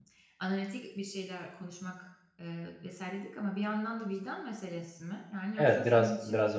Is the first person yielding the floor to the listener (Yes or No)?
Yes